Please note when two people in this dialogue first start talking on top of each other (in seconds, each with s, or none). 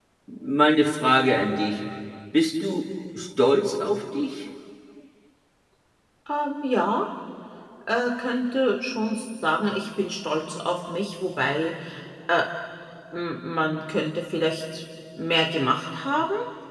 none